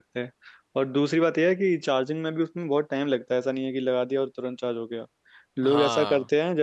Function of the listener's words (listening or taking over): listening